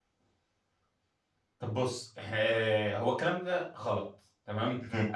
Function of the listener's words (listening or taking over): listening